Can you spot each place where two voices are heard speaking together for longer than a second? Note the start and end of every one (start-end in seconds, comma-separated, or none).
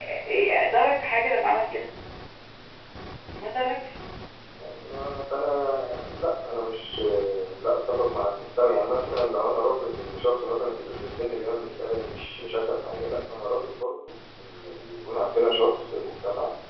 none